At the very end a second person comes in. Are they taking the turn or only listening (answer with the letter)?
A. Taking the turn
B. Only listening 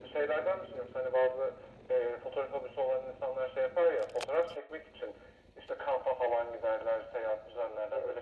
A